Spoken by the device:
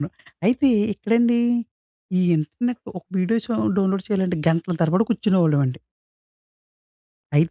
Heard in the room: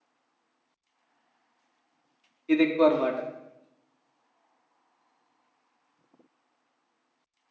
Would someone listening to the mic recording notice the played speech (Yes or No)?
No